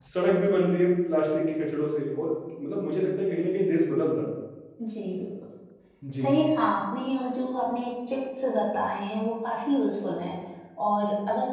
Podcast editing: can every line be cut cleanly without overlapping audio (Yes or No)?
Yes